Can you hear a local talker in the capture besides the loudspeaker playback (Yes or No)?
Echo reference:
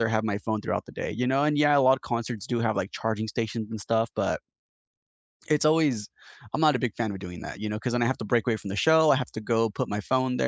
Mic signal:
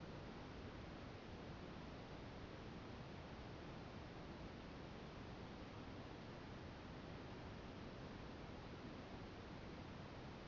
No